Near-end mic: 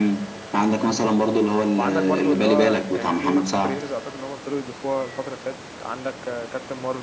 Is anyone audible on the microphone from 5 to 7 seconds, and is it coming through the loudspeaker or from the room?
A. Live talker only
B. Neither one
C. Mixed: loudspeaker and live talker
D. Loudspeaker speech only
A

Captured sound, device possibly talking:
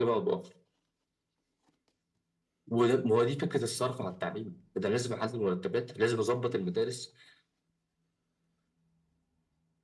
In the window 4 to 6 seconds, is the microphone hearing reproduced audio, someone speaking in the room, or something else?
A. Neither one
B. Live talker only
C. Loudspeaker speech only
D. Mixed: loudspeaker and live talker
C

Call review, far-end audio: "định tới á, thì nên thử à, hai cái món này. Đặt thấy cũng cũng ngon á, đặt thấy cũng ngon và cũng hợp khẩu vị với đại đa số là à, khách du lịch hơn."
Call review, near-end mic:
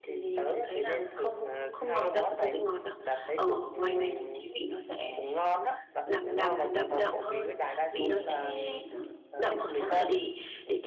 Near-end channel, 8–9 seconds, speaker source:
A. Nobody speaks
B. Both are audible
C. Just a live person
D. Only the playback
B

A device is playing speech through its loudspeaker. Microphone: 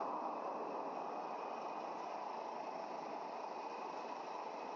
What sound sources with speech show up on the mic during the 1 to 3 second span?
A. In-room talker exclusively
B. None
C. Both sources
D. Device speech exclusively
B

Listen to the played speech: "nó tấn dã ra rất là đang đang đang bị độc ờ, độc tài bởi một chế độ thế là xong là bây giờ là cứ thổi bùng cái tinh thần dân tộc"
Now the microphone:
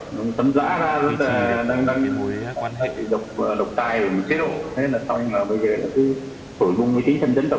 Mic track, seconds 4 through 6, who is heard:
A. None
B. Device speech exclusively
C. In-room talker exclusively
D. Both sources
B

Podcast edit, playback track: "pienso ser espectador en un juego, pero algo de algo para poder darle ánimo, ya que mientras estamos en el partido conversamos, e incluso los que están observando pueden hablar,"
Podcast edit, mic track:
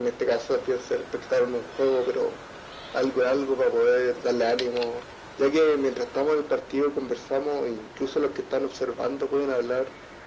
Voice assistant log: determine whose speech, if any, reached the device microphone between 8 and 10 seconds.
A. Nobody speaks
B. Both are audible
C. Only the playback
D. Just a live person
C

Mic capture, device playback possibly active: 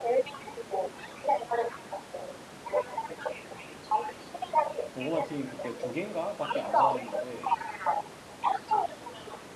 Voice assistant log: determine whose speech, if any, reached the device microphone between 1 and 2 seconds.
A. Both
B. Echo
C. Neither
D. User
B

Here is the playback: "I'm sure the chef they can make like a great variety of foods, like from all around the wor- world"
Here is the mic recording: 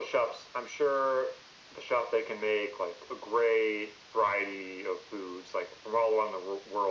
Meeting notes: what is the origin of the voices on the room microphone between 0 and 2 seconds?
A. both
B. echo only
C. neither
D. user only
B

